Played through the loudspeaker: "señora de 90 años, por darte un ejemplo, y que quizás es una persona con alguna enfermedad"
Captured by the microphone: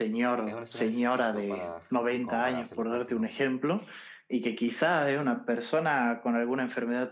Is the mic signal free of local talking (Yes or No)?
No